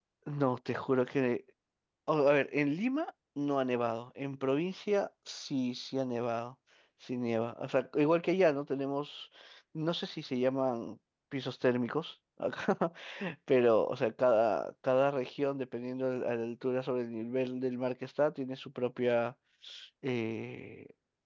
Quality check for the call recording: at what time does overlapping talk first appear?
none

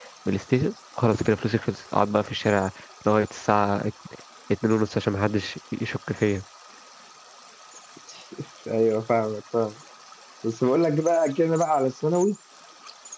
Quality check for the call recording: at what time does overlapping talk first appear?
none

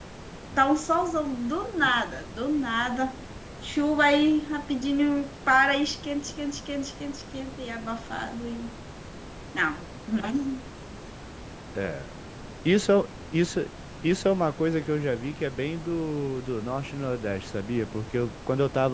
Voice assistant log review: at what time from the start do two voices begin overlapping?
none

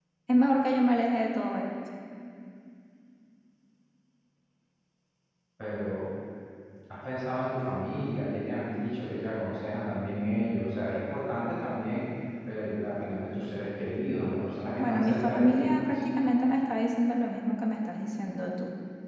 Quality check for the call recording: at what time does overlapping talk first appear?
15 s

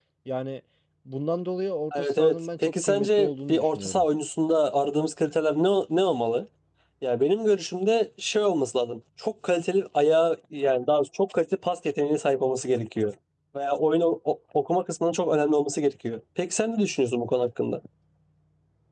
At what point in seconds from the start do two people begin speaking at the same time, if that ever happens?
2 s

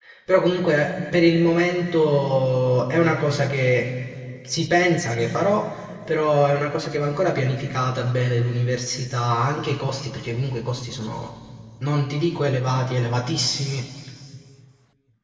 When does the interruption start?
none

